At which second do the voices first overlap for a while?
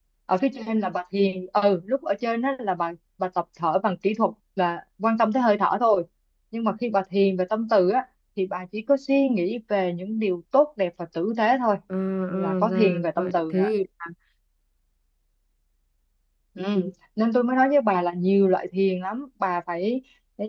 12 s

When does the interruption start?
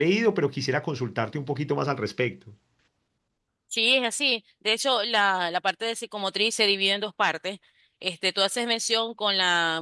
none

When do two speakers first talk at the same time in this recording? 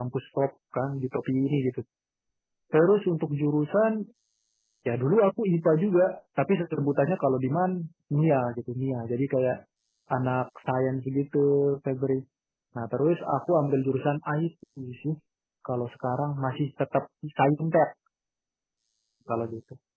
none

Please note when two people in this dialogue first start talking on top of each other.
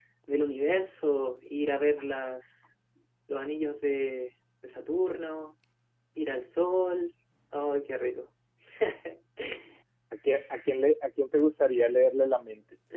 none

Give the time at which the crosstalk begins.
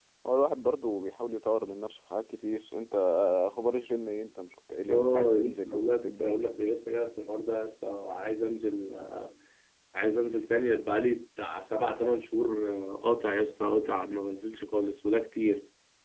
5 s

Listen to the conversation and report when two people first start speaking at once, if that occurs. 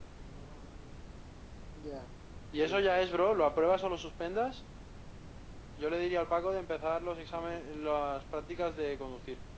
3 s

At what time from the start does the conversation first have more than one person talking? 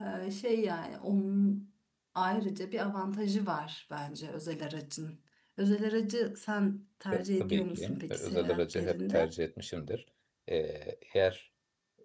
7 s

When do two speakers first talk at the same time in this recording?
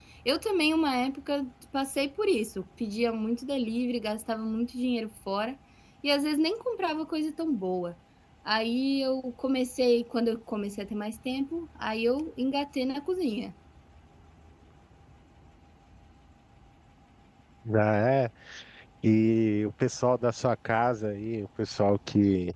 none

